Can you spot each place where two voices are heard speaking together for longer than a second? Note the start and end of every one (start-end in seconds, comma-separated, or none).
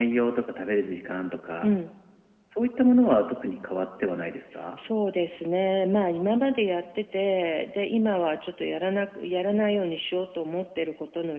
none